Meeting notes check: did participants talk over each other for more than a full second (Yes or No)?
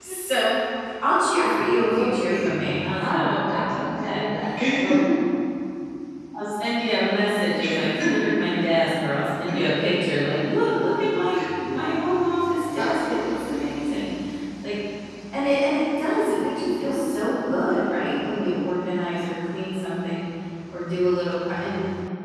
Yes